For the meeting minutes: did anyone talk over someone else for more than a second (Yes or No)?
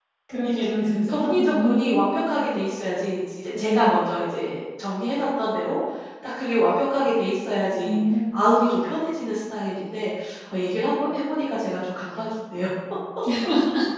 Yes